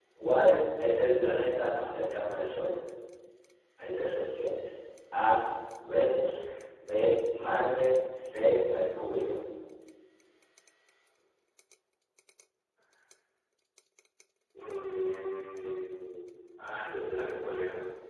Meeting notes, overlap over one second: none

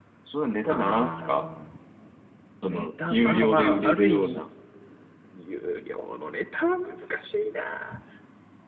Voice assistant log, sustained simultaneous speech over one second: present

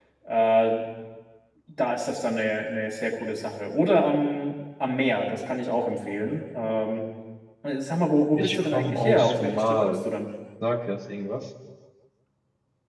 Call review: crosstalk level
present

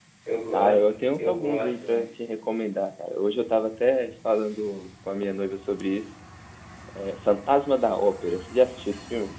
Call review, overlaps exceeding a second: present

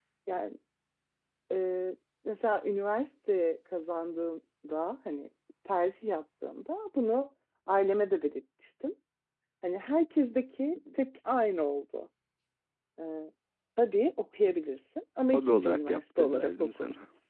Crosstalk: present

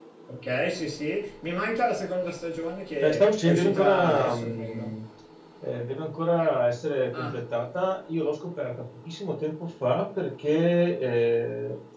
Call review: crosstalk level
present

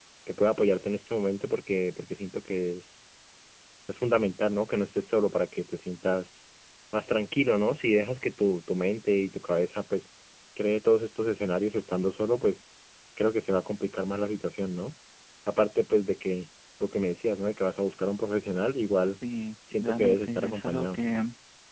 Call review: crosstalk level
present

